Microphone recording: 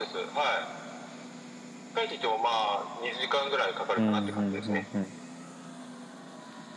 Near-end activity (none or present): present